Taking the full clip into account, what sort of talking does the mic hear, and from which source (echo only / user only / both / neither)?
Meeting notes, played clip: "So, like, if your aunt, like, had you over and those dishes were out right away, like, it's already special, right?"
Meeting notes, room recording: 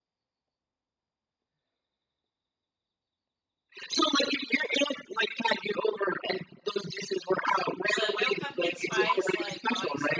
both